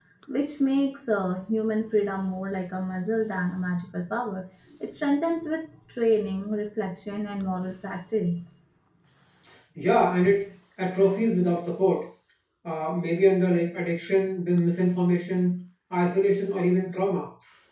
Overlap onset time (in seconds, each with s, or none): none